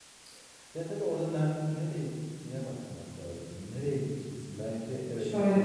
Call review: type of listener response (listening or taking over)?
taking over